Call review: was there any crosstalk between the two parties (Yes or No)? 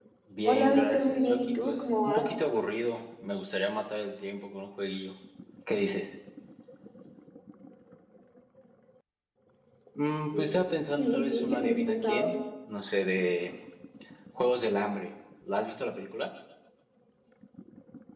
Yes